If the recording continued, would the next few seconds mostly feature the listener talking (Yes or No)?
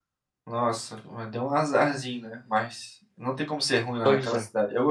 No